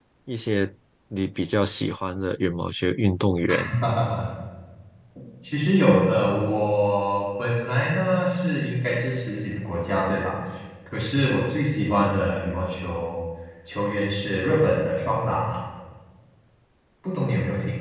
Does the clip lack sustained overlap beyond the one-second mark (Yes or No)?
Yes